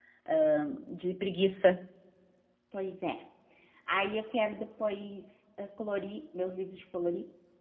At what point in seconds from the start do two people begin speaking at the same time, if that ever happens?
none

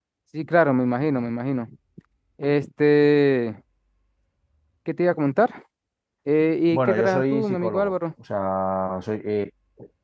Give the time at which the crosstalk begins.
6.7 s

